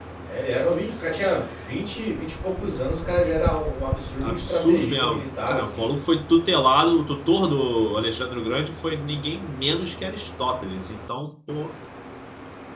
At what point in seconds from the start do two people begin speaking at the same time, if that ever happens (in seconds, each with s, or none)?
4.2 s